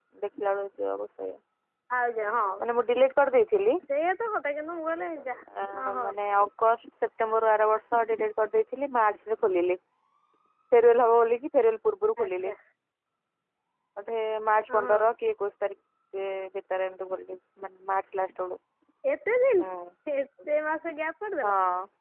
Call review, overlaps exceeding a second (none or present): none